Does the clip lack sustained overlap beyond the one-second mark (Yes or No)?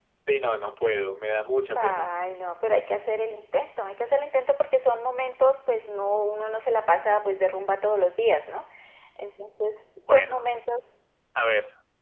Yes